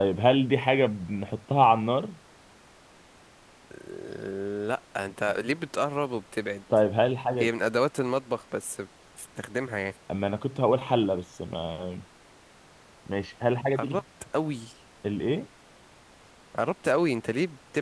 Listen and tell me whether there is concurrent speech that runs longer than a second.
No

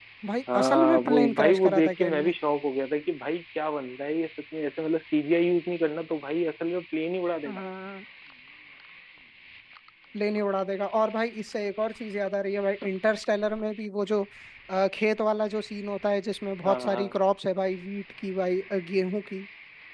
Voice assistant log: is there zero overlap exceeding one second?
No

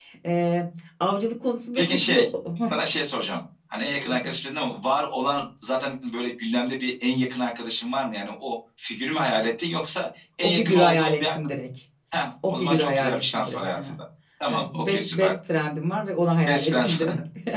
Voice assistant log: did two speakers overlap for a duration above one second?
Yes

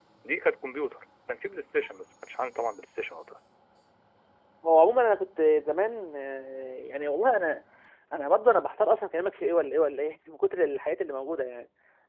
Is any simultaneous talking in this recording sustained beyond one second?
No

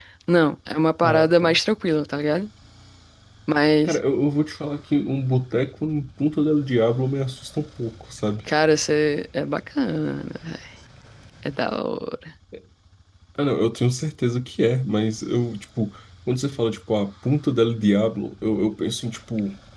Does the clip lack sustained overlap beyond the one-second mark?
Yes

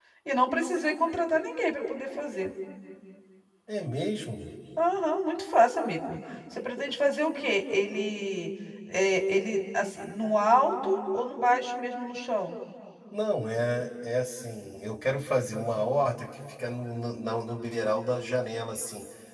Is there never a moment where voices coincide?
Yes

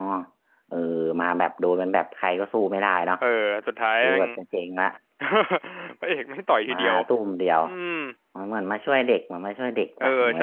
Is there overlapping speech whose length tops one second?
No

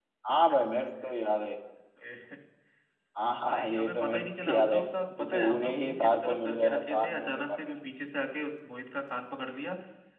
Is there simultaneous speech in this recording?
Yes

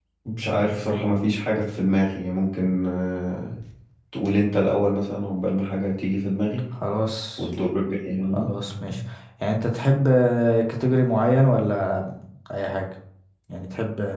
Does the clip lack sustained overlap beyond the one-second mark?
Yes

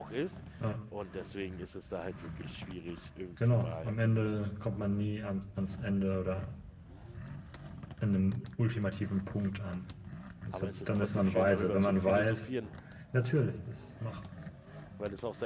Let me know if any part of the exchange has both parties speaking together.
Yes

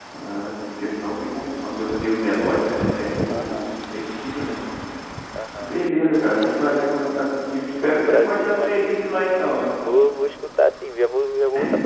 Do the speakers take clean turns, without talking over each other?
No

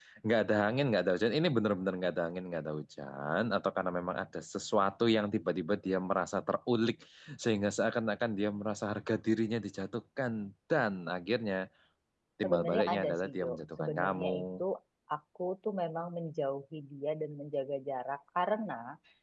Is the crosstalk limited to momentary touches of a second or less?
No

